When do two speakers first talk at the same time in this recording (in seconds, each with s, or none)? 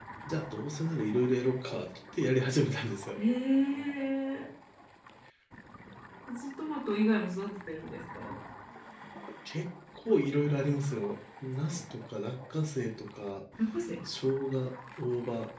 none